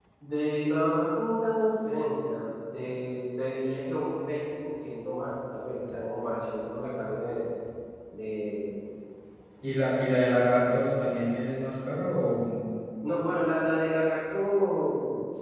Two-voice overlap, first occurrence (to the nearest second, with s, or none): none